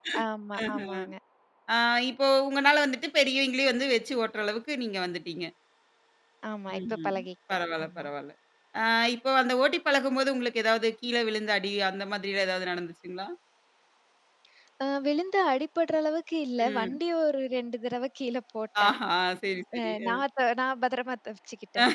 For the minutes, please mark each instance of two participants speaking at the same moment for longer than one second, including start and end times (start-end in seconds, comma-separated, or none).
none